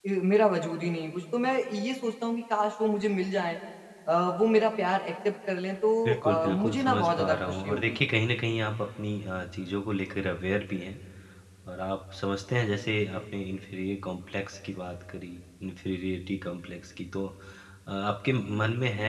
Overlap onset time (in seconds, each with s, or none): 6.0 s